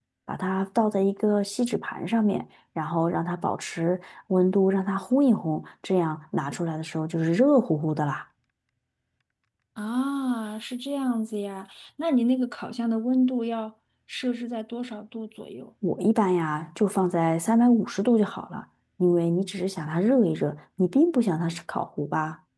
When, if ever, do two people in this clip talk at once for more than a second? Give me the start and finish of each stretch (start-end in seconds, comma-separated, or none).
none